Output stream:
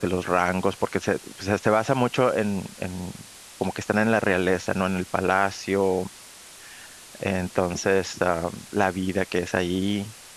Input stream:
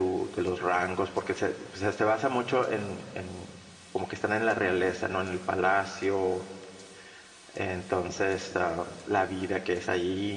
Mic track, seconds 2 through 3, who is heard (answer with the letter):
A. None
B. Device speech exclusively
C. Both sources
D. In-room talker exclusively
B